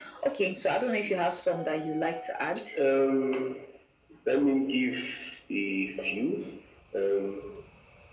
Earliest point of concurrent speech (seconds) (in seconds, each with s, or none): none